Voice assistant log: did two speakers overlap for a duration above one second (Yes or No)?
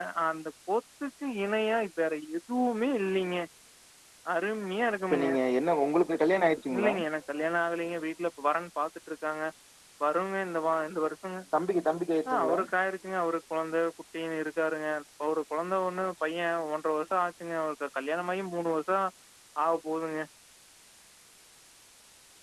No